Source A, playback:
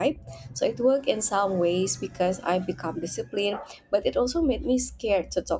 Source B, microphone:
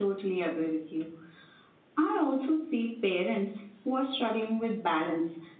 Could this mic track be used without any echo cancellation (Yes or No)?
Yes